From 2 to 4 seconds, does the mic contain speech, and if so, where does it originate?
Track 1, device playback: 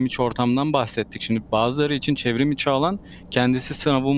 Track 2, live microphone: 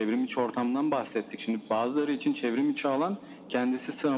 echo only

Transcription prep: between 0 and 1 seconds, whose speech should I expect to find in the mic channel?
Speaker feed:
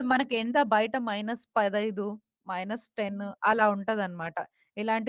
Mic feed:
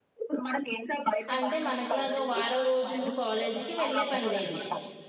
echo only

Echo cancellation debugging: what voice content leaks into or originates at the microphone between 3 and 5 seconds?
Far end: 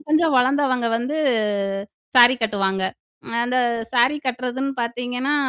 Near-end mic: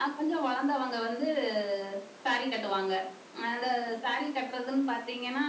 echo only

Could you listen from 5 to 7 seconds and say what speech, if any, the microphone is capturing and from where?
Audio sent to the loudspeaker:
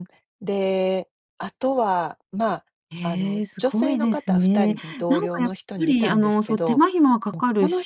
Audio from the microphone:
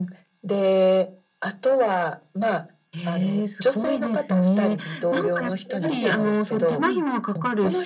both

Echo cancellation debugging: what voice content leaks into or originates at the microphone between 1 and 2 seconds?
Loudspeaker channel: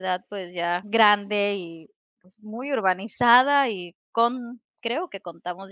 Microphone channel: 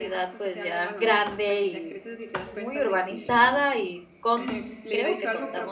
both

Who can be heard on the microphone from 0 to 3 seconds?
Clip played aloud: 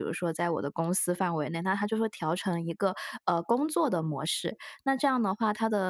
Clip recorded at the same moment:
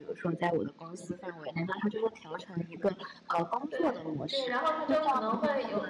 echo only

